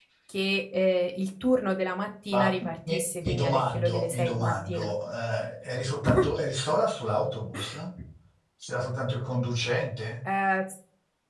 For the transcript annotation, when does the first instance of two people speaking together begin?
2.3 s

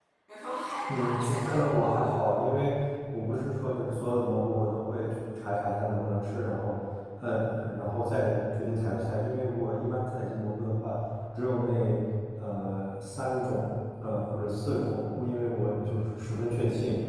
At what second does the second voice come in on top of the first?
0.9 s

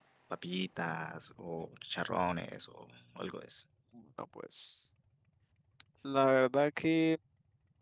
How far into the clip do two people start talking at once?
none

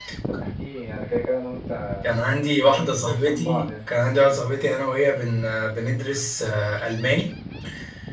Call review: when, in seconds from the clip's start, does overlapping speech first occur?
2.7 s

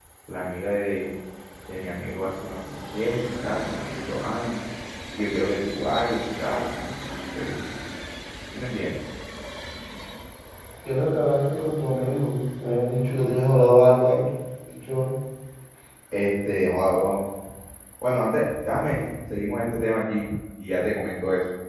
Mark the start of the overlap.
none

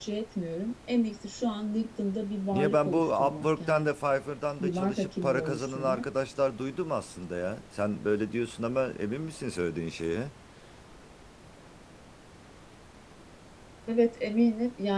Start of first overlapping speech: 2.5 s

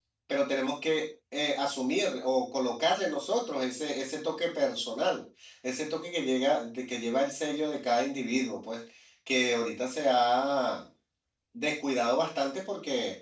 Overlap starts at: none

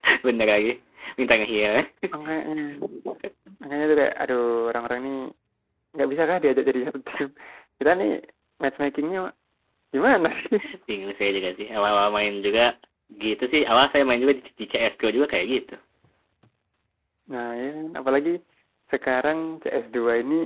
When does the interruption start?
none

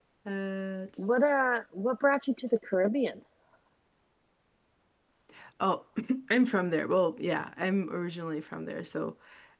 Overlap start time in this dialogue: none

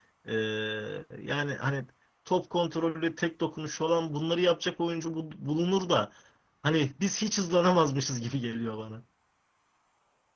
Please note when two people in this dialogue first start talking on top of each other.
none

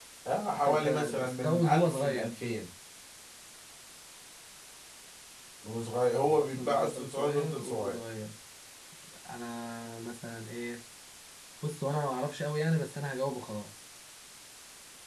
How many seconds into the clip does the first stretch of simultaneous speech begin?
0.6 s

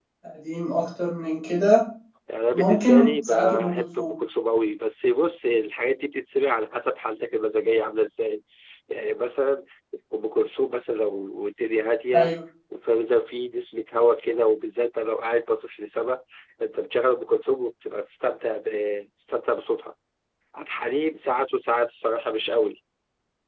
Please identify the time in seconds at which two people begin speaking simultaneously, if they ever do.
2.5 s

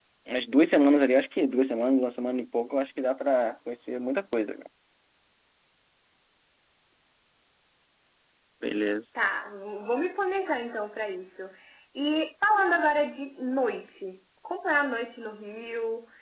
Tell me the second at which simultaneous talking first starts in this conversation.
none

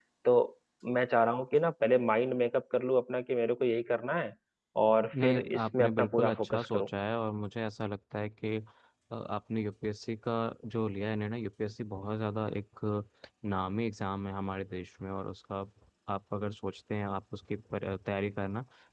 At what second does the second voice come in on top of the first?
5.2 s

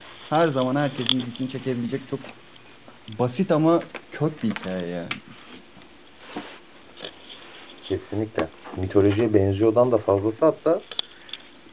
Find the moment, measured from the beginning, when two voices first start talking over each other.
none

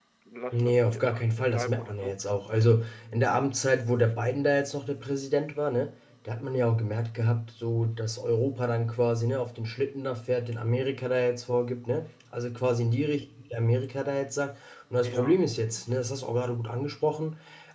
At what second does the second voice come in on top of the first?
0.5 s

